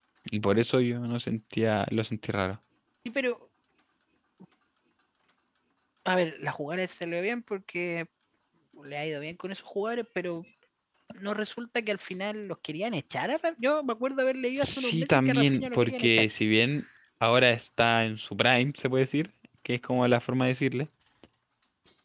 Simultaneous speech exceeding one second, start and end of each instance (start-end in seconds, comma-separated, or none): 14.6-16.3